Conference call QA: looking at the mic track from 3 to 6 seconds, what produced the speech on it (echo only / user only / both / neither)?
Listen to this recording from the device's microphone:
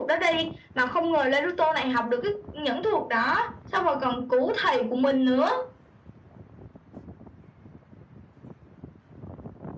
echo only